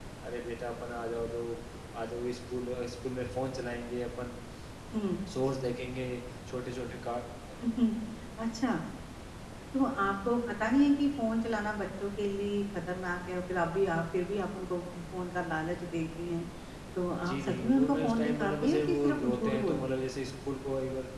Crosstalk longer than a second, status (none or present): present